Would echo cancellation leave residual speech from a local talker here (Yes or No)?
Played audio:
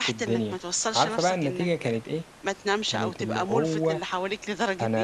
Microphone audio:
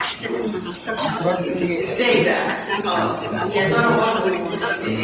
Yes